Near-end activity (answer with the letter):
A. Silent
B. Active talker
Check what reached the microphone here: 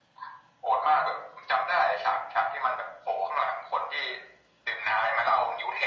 A